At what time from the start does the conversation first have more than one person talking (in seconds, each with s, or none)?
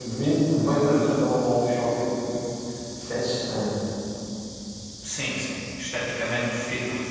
none